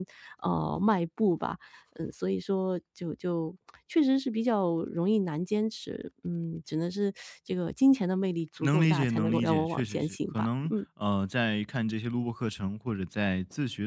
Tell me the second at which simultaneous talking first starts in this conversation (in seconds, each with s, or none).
8.6 s